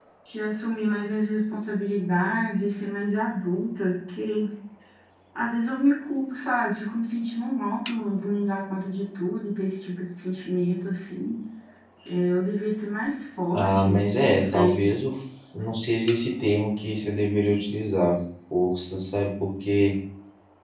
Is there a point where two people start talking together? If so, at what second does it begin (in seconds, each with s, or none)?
13.5 s